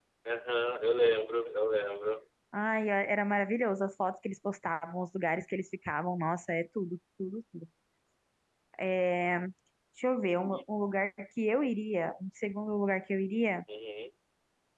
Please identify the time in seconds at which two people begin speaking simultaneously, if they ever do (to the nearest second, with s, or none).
none